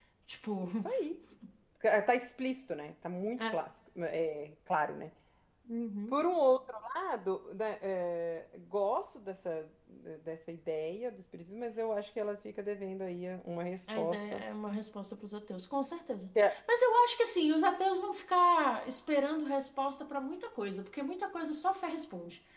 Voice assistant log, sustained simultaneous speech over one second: none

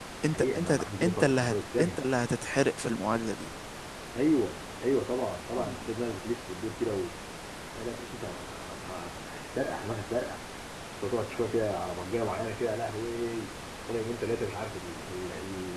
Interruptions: present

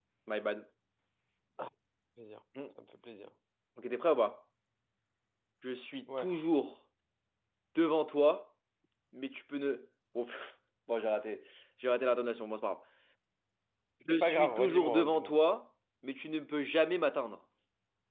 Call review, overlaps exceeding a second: present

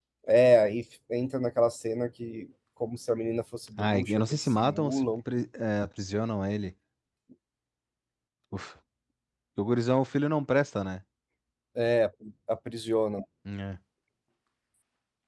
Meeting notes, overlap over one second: present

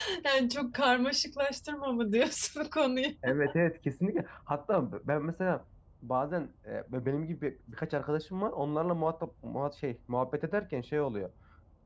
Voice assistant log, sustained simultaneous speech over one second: none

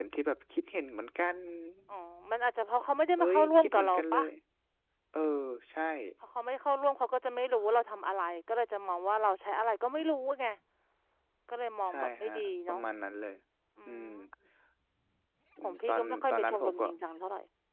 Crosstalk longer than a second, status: present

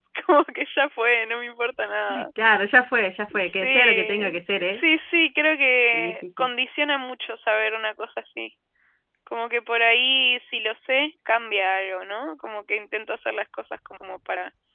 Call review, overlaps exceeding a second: present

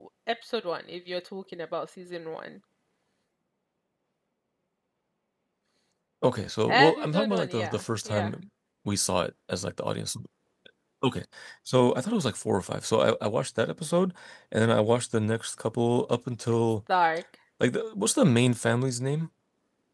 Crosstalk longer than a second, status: present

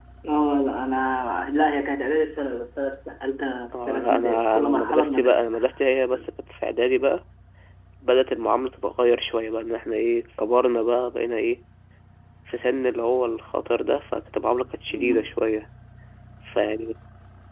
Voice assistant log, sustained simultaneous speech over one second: present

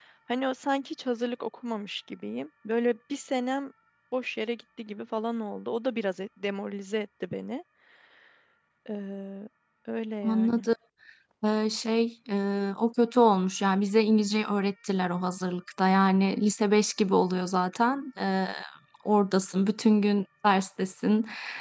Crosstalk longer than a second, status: none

